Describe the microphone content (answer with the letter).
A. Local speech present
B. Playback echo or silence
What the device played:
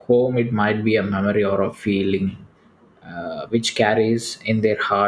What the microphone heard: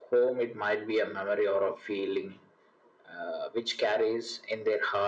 B